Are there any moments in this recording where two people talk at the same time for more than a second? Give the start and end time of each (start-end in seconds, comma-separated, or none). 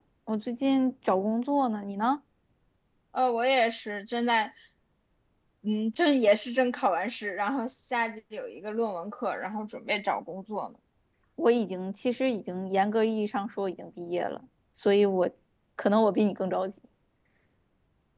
none